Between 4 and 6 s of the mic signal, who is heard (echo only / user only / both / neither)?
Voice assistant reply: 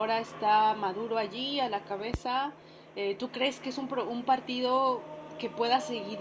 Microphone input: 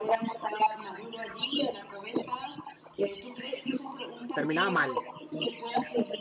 both